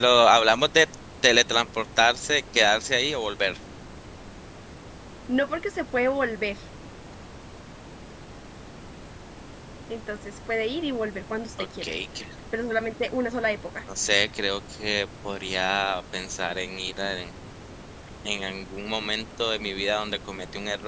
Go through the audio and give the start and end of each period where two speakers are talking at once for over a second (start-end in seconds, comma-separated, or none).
none